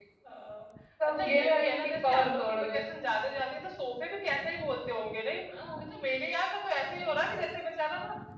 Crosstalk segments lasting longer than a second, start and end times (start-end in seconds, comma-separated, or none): 1.0-2.9